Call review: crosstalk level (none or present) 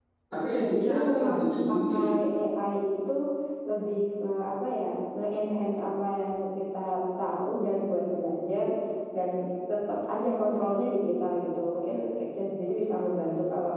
present